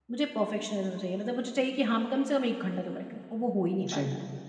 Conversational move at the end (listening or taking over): taking over